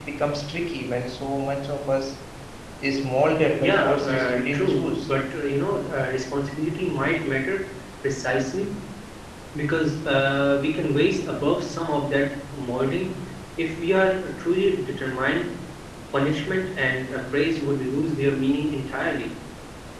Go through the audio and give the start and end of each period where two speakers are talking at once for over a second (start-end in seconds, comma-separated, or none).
3.6-5.1